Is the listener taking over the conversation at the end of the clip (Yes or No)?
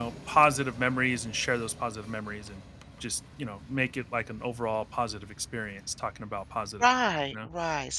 Yes